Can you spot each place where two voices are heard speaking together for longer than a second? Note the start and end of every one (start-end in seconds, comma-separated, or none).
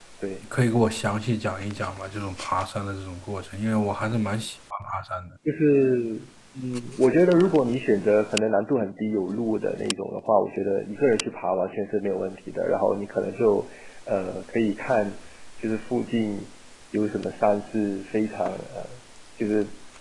none